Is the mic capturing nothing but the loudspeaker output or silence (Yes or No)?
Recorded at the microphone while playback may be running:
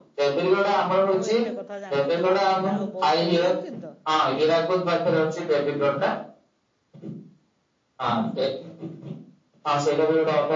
No